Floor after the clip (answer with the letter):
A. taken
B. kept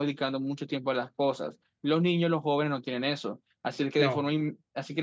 B